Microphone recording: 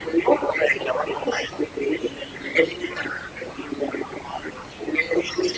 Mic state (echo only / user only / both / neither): echo only